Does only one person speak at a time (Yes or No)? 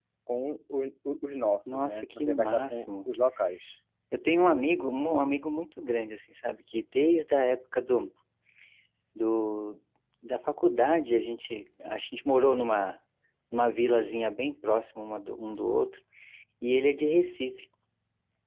No